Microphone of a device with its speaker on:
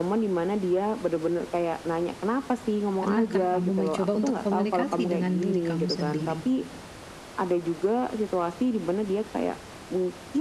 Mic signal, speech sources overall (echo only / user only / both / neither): both